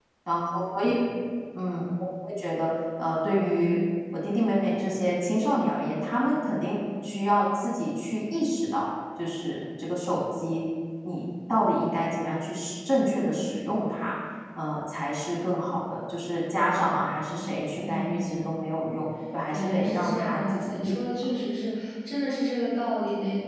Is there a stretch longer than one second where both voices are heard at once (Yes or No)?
Yes